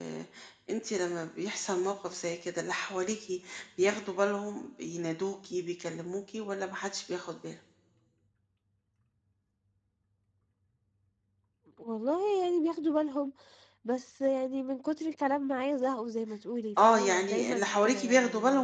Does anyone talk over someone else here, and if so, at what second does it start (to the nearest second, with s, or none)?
17 s